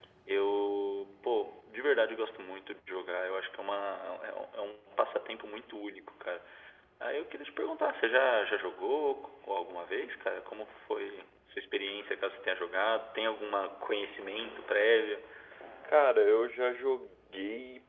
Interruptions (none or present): none